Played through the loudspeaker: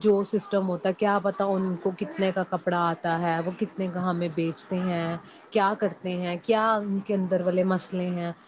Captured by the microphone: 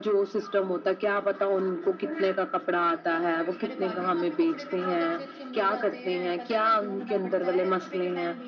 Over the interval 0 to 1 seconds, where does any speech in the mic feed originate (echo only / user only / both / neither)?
echo only